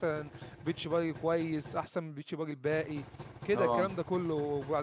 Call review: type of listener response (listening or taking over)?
listening